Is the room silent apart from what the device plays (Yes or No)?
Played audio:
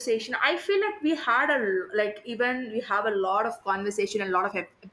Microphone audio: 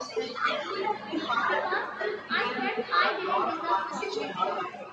No